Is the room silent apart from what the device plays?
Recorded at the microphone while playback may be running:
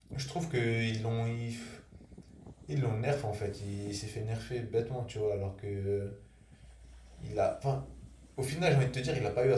No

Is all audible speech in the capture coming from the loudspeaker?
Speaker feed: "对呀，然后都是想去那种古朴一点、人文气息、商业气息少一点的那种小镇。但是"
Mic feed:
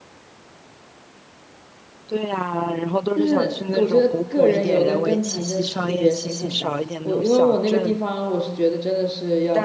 No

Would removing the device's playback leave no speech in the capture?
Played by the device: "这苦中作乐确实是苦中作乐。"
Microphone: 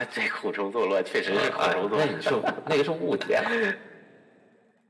No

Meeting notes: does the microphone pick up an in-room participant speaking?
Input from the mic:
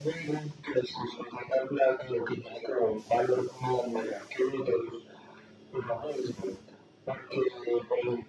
No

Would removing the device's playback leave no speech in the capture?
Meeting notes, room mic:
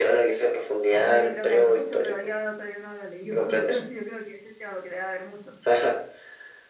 No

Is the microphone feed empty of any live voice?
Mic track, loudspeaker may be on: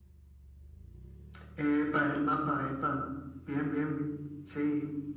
Yes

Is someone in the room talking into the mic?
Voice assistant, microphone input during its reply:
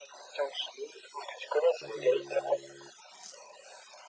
Yes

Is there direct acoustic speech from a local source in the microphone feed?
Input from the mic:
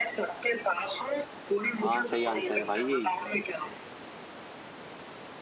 Yes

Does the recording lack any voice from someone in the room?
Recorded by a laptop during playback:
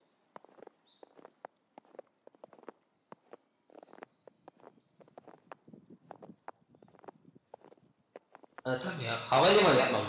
No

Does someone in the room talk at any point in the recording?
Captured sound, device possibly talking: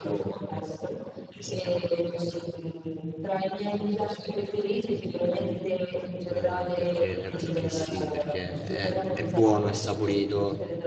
Yes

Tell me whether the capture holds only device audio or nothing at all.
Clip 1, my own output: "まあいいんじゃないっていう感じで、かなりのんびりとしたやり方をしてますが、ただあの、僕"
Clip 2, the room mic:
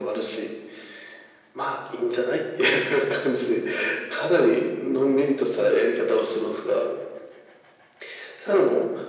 Yes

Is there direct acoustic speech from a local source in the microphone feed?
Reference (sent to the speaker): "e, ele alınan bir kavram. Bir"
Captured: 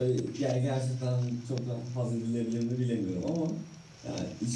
Yes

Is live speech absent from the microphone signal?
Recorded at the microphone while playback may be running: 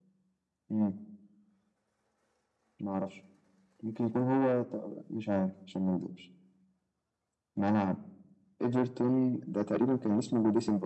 Yes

